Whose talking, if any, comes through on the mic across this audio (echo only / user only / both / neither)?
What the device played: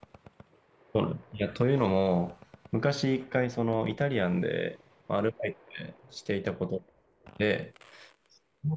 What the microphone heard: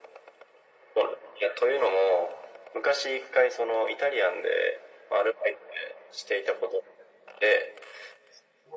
echo only